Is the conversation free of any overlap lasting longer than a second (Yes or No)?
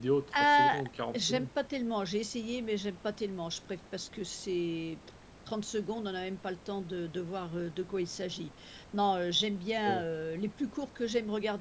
Yes